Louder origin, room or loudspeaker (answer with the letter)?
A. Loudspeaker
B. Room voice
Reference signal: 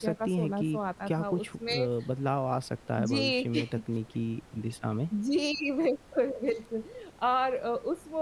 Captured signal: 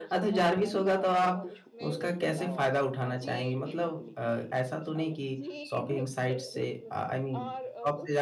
B